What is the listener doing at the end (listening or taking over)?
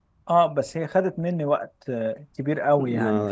taking over